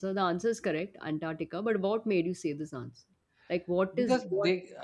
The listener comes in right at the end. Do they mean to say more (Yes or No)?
Yes